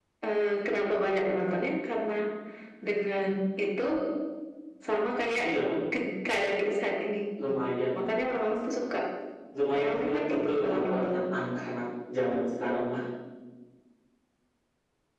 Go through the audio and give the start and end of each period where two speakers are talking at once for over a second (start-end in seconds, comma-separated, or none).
9.8-11.1